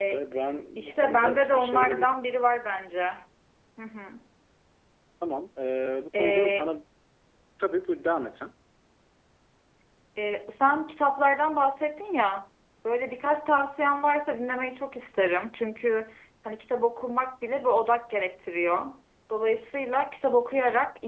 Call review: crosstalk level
present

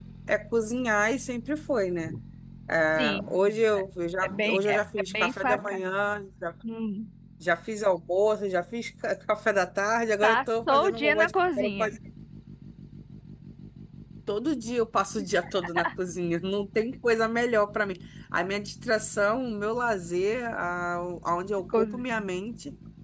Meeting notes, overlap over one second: present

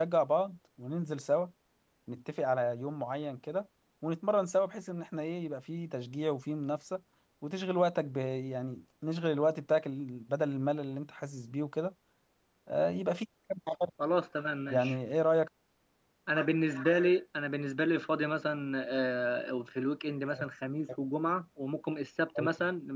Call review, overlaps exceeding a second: none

